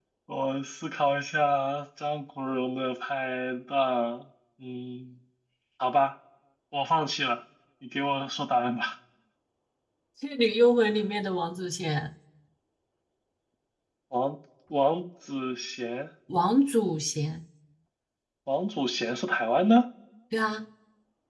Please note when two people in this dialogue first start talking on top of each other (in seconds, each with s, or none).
none